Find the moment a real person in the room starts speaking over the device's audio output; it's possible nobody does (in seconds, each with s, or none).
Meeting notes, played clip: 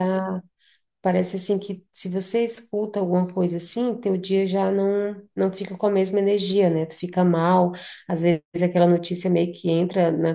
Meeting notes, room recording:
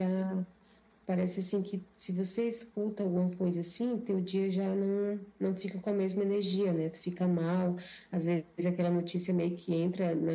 none